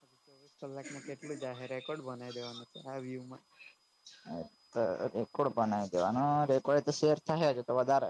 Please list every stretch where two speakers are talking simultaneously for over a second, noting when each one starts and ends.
none

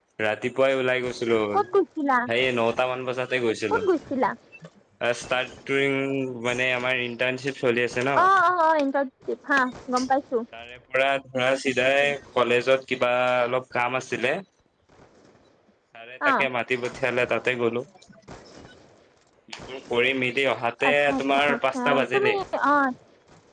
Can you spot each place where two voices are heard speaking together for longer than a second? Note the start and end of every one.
20.9-22.3

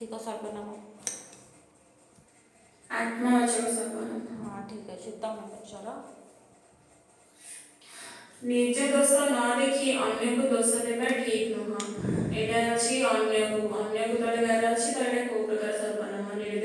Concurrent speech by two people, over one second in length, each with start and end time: none

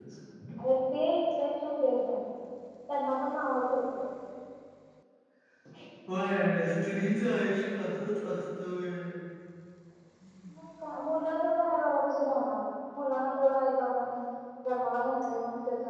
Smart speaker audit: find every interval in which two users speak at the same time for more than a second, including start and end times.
none

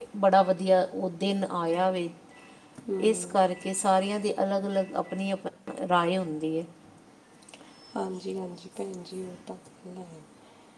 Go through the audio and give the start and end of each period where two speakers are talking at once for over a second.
none

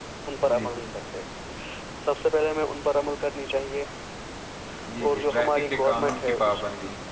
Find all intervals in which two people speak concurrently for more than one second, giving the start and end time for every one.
5.0-6.6

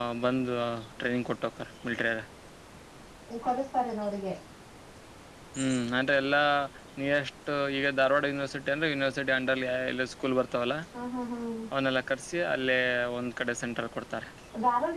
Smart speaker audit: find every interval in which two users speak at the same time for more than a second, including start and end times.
none

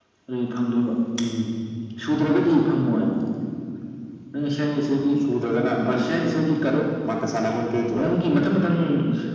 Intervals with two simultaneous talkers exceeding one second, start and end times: none

